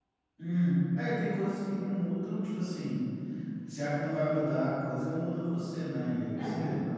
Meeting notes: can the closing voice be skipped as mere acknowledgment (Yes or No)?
Yes